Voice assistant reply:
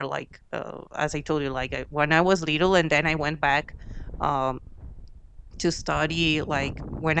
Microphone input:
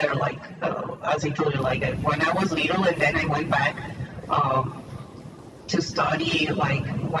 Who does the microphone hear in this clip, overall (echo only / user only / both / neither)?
echo only